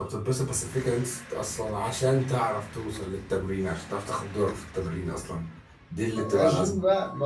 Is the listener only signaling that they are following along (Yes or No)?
No